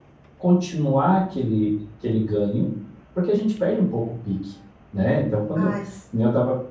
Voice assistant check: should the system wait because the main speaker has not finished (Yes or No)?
Yes